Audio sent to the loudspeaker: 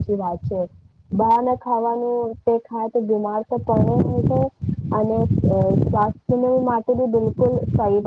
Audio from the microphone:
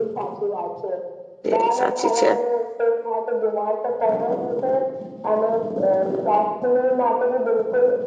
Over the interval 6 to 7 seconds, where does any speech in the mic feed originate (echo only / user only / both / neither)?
echo only